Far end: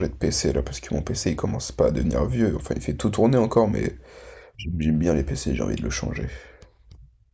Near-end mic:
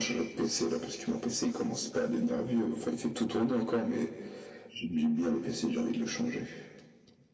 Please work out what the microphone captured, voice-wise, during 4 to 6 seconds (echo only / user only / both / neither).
echo only